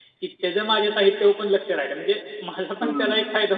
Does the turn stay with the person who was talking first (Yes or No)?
No